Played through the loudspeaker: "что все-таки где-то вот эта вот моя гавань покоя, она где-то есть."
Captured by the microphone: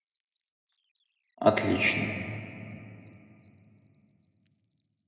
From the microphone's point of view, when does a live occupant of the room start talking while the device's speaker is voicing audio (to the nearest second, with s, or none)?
1 s